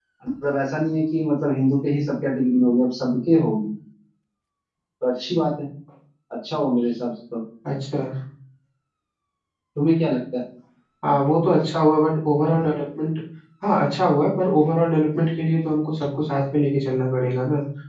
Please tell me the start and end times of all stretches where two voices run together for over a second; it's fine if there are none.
none

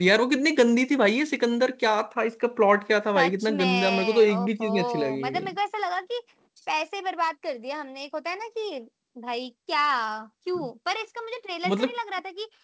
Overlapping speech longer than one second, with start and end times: 3.2-5.4

